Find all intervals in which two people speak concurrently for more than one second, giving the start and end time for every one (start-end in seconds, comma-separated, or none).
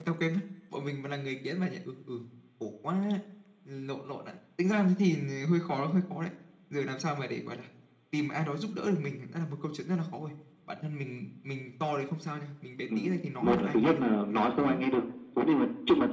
13.4-14.8